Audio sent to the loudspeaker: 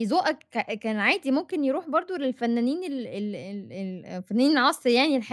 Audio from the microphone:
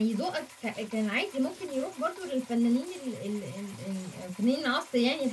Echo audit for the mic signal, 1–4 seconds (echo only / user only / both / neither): echo only